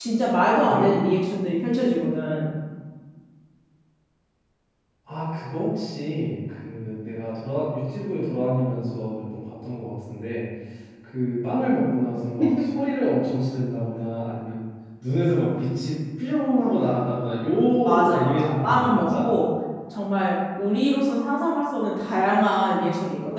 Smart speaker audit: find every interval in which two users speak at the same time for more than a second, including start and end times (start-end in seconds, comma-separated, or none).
17.8-19.2